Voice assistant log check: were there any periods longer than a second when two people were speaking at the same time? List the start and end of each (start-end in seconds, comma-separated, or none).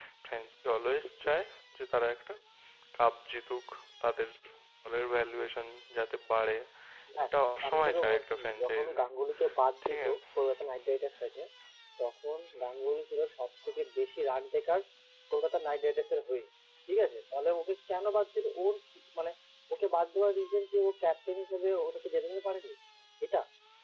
7.7-9.0